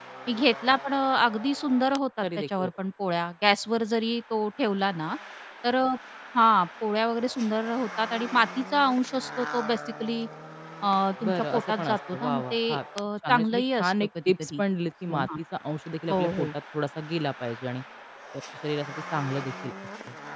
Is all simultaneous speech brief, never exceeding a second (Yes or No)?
No